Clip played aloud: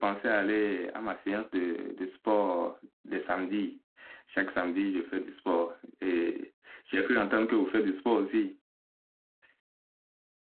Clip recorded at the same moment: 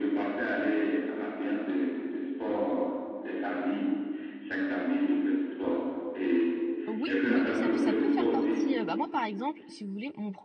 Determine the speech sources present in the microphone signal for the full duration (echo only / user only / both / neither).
both